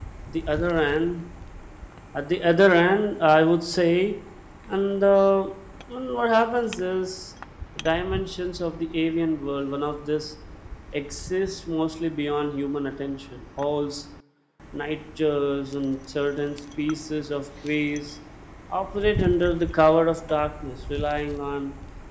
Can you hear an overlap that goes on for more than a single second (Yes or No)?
No